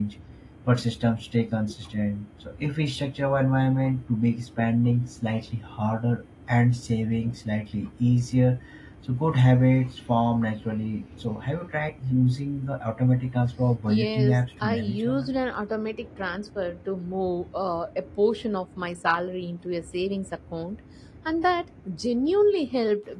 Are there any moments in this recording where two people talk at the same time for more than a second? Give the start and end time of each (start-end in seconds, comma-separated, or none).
13.9-15.4